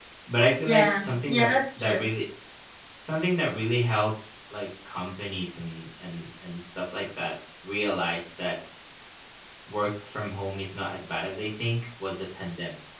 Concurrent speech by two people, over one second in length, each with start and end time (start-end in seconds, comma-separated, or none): 0.7-2.1